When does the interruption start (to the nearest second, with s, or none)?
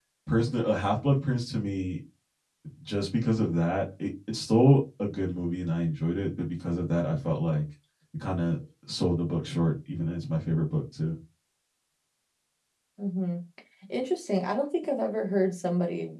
none